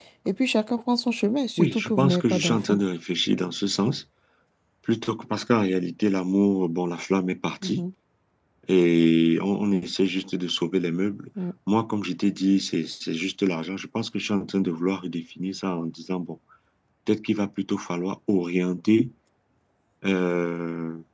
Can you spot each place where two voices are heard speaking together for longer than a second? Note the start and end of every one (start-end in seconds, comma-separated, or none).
1.6-2.8